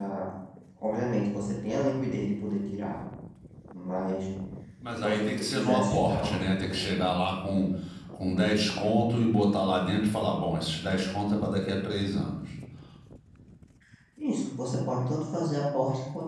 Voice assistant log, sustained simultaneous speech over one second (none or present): present